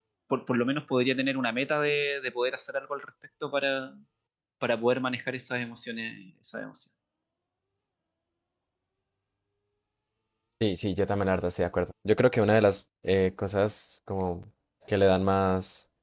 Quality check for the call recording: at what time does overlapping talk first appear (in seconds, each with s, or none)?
none